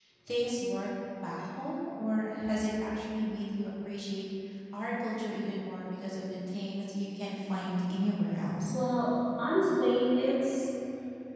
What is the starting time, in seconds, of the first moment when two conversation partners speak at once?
none

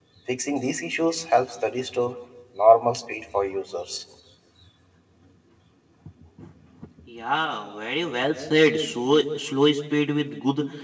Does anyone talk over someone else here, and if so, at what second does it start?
none

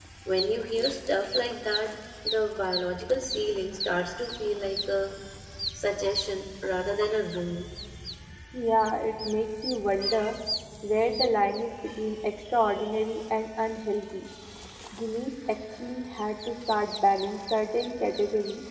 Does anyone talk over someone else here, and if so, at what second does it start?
none

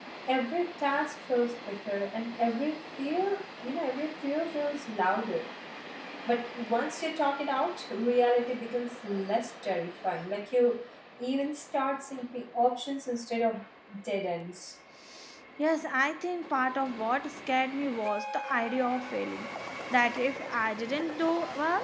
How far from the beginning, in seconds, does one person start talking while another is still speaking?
none

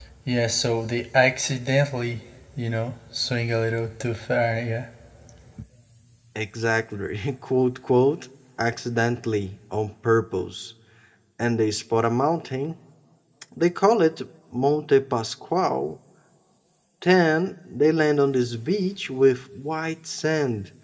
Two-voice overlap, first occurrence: none

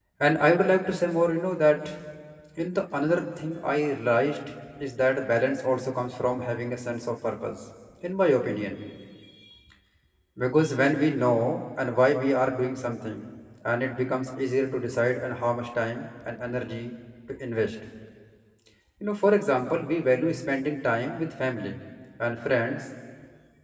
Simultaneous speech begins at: none

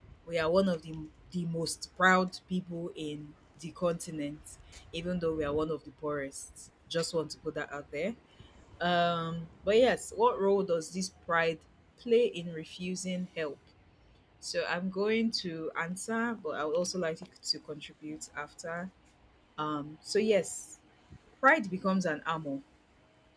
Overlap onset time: none

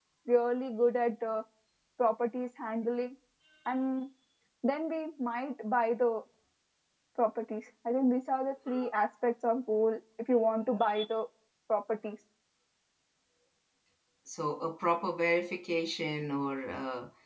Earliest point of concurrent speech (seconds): none

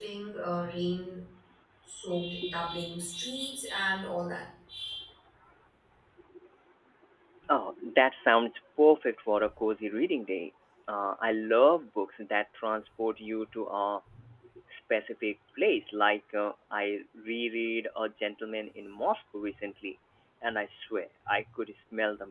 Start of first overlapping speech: none

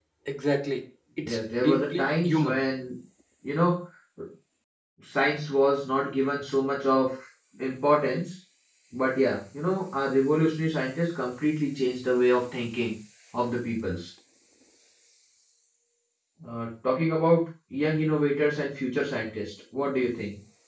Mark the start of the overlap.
1.2 s

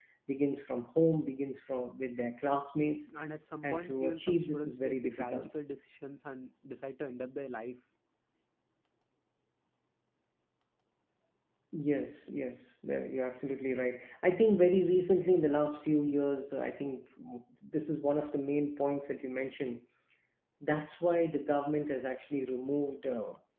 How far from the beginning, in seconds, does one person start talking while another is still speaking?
3.6 s

